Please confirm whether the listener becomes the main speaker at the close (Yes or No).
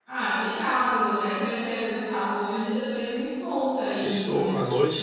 Yes